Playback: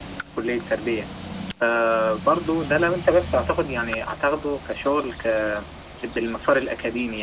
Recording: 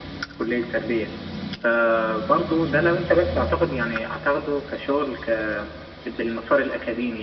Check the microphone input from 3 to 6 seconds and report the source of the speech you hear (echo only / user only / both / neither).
echo only